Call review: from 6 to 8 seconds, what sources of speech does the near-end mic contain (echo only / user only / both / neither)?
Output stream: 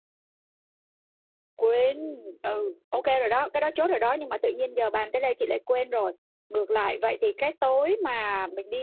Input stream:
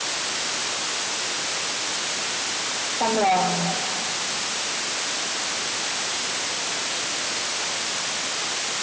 neither